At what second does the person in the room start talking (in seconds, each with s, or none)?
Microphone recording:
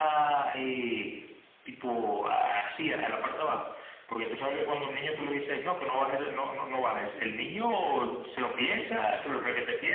none